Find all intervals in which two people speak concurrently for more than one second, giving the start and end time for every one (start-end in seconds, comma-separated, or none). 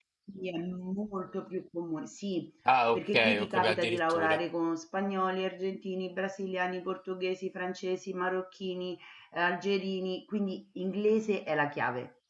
2.9-4.4